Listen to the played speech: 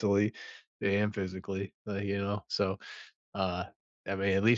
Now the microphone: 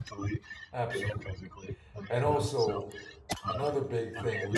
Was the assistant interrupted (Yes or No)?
Yes